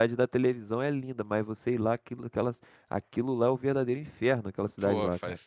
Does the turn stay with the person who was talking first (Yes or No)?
No